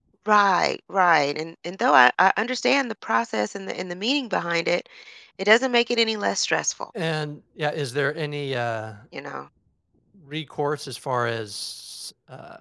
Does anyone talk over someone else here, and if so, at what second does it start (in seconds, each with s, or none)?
none